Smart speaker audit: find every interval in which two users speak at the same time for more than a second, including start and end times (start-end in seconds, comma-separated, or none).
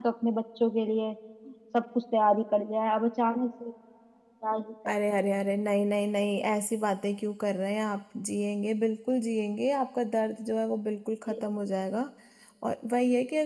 none